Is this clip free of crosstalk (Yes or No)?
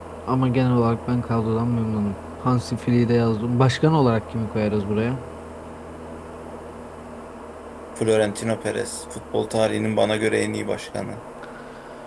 Yes